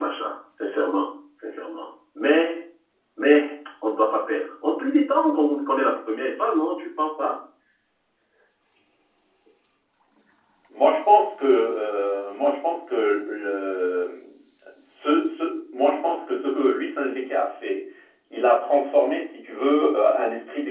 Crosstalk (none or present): none